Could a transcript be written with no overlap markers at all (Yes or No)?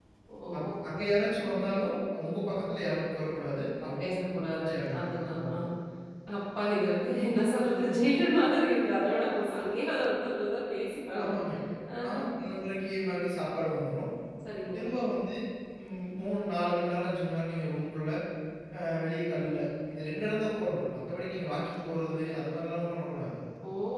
No